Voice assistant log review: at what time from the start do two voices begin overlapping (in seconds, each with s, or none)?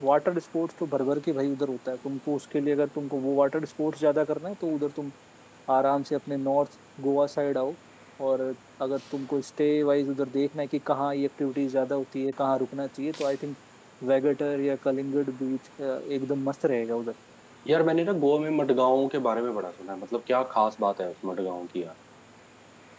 none